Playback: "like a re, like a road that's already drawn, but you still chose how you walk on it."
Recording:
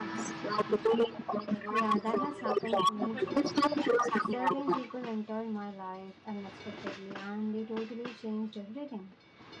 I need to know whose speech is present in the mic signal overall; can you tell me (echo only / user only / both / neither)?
both